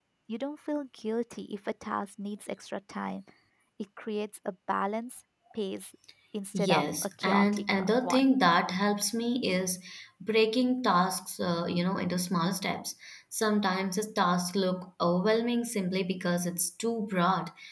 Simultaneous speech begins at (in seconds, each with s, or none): 6.5 s